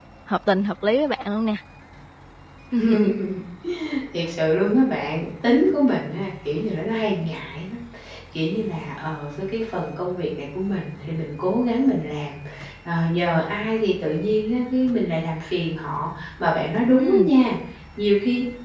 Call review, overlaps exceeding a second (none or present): none